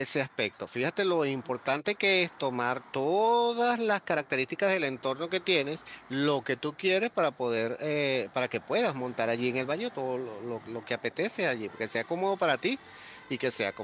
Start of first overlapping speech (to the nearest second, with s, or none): none